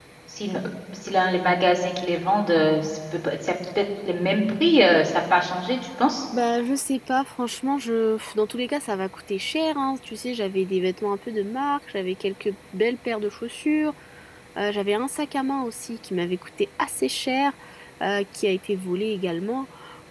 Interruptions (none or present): none